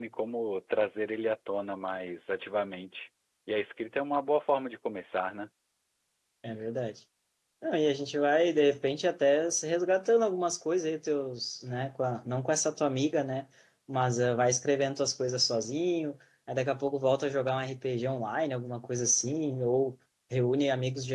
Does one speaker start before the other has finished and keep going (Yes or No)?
No